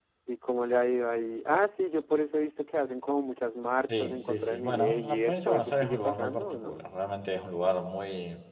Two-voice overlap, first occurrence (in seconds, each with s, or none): 3.9 s